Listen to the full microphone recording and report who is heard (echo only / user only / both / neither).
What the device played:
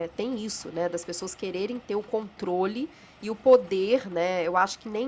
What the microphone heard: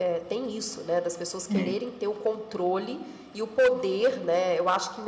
both